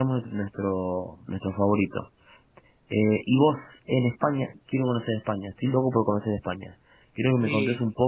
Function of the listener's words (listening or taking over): listening